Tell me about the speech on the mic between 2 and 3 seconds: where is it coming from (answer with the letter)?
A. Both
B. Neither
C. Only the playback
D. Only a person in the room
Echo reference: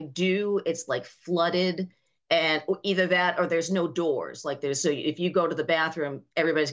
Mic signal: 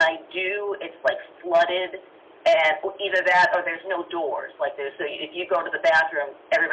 C